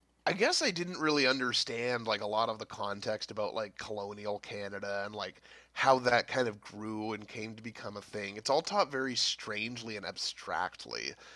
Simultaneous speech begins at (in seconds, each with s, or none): none